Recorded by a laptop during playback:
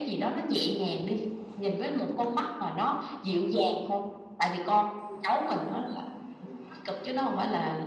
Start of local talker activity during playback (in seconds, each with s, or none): none